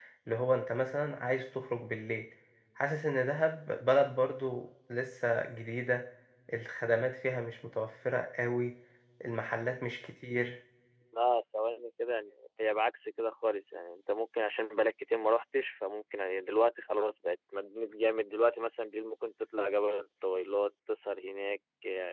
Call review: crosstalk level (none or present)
none